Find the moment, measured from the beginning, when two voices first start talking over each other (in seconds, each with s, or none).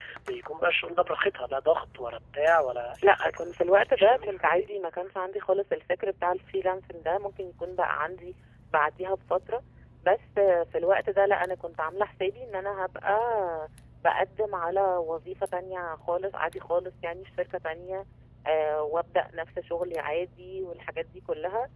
3.0 s